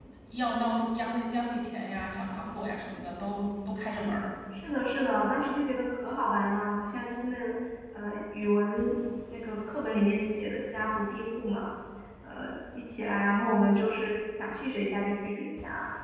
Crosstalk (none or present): none